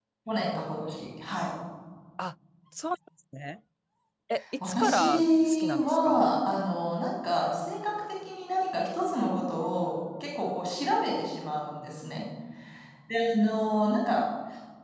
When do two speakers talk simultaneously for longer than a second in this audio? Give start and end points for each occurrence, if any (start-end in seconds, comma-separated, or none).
4.7-6.3